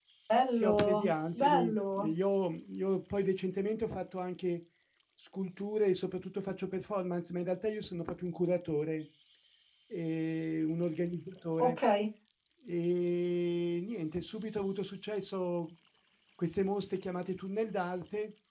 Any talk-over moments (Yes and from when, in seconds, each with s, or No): Yes, from 0.6 s